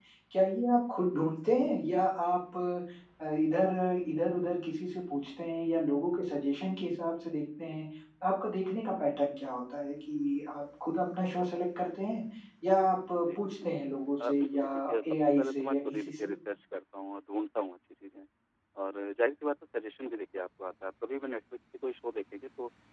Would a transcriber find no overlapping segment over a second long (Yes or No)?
No